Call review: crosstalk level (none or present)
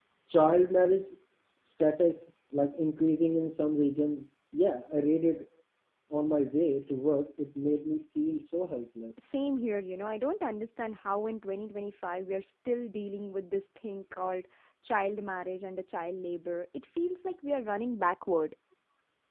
none